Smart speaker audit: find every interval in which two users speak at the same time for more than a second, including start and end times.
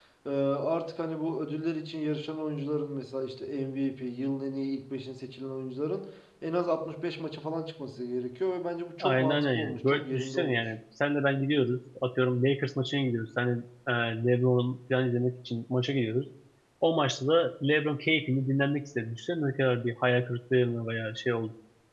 9.0-10.7

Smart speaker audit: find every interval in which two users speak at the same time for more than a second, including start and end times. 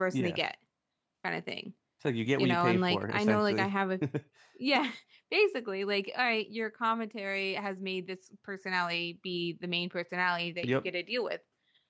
2.4-3.7

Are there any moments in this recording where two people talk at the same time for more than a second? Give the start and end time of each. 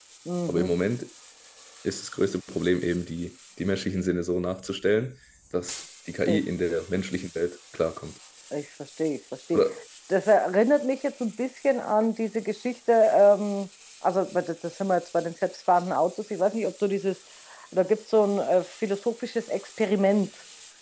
none

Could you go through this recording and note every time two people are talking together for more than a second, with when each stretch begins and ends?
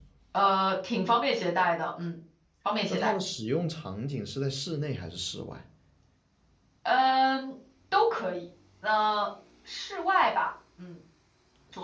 none

